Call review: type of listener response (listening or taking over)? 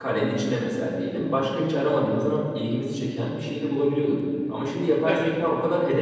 listening